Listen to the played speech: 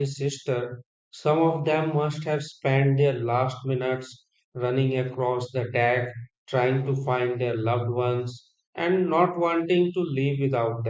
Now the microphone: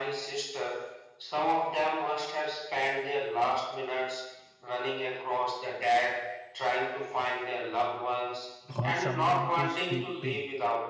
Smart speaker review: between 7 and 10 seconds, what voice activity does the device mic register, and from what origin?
both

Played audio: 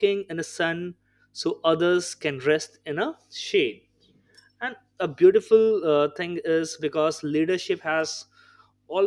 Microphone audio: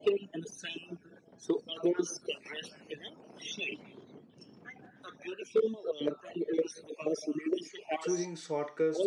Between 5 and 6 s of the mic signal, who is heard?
echo only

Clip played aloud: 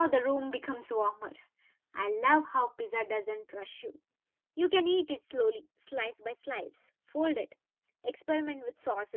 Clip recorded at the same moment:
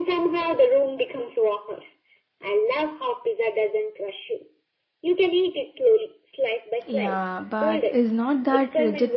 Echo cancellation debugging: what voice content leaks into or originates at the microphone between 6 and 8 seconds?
both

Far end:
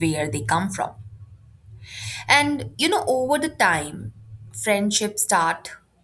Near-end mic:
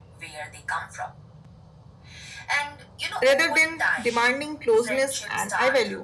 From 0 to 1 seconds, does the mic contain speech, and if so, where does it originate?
echo only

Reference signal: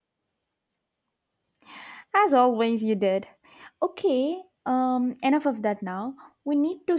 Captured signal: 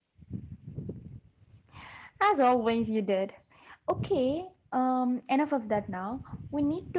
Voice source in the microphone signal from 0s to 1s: neither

